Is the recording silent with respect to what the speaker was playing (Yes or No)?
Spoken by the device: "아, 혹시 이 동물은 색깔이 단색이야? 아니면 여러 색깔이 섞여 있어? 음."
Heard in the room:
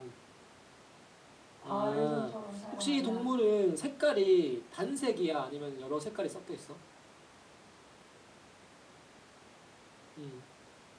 No